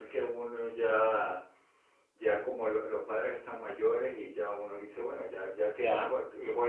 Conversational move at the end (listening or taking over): listening